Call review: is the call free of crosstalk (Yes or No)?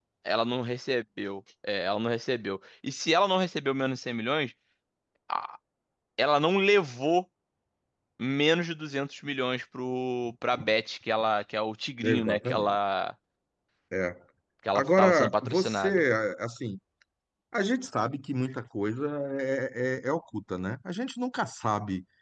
No